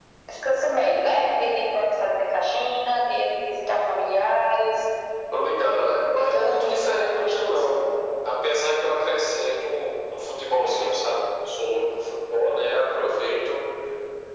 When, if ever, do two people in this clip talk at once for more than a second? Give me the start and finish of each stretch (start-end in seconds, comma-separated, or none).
6.2-7.8